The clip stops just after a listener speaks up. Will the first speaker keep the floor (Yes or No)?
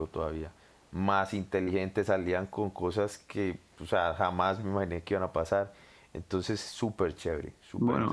No